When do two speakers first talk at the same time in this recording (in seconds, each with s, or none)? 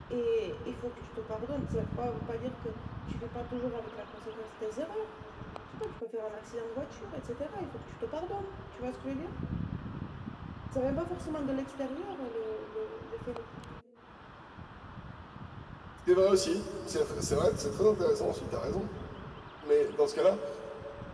none